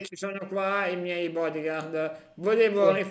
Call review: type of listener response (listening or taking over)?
listening